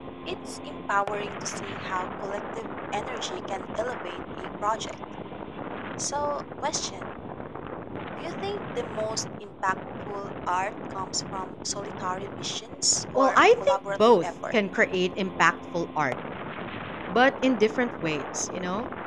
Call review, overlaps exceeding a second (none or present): present